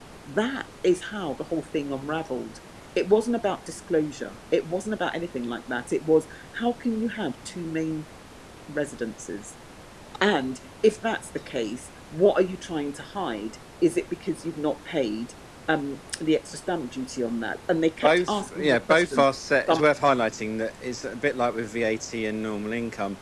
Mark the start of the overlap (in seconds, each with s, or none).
18.0 s